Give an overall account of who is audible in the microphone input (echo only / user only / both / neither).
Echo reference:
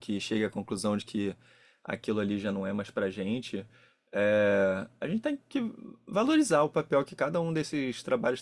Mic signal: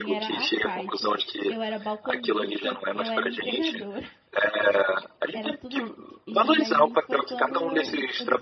both